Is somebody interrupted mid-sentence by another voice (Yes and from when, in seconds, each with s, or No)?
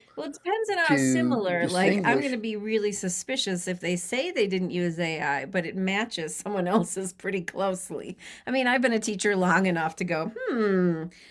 Yes, from 0.8 s